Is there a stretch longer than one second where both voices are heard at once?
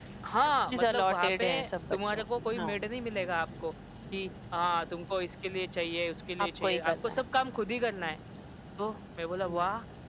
Yes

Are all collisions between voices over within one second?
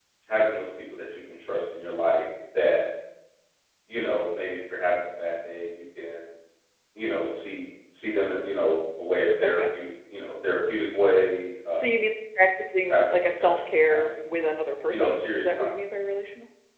No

